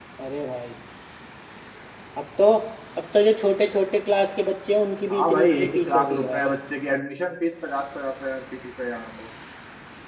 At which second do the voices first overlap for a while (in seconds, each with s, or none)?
5.1 s